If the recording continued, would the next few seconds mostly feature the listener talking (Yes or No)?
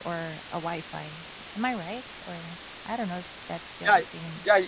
Yes